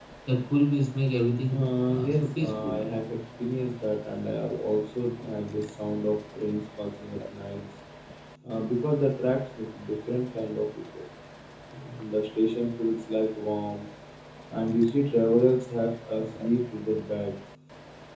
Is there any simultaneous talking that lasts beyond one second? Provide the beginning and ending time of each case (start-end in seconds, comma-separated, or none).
1.5-2.8